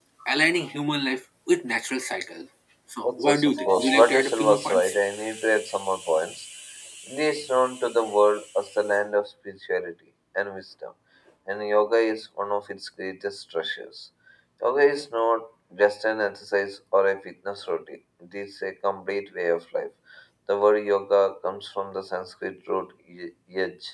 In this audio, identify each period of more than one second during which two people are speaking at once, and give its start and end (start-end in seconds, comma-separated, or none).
3.0-4.9